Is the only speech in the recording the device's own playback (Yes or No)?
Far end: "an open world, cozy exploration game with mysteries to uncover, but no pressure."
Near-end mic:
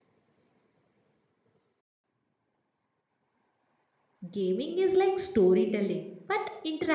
No